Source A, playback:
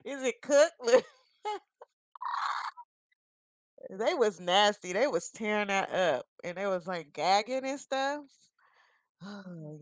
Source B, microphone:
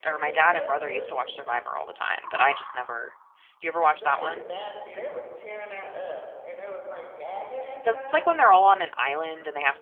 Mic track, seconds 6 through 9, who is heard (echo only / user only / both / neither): both